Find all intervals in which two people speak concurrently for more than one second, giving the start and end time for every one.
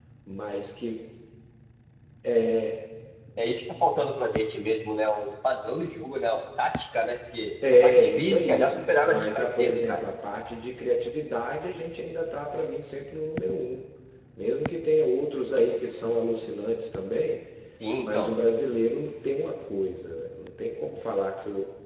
7.8-10.0

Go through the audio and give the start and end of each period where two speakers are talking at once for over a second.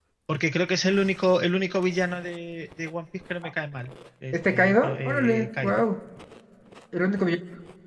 4.3-5.8

